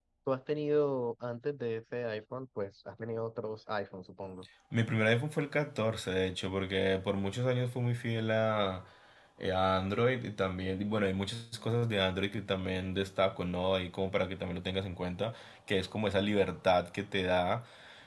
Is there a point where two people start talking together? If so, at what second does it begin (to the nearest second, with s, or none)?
none